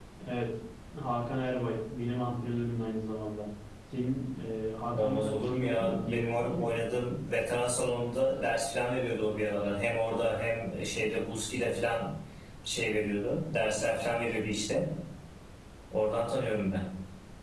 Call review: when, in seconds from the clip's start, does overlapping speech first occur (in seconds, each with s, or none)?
4.9 s